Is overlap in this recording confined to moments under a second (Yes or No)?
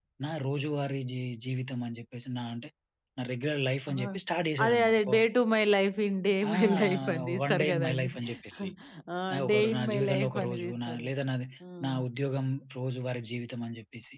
No